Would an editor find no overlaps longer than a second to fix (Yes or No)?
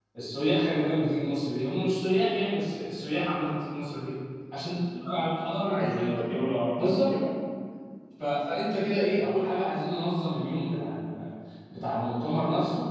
Yes